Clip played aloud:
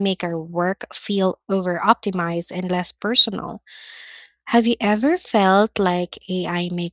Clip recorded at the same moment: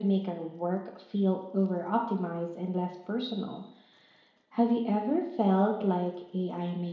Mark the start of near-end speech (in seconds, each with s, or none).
none